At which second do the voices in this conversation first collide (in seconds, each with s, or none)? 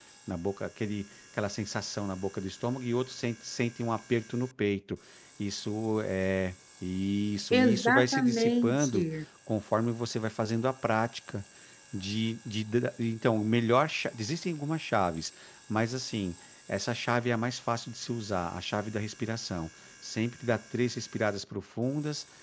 7.5 s